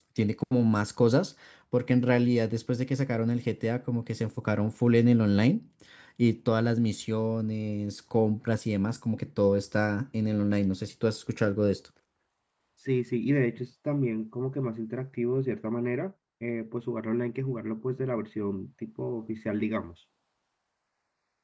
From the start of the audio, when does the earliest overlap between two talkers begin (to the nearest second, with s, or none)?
none